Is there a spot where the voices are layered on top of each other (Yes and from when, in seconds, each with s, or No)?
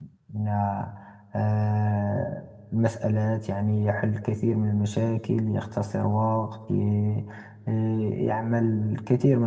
No